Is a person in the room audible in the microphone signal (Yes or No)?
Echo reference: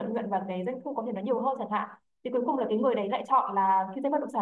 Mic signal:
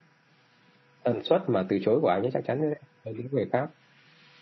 Yes